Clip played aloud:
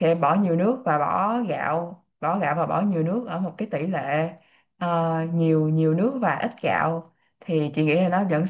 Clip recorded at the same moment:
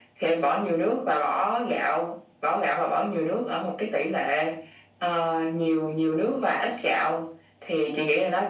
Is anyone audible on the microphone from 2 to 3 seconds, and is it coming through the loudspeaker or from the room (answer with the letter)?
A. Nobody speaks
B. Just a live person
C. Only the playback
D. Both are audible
C